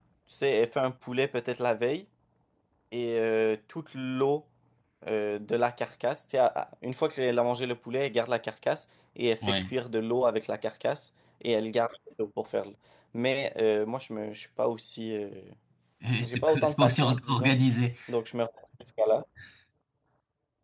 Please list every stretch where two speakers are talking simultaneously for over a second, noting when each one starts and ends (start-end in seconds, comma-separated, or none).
16.2-17.5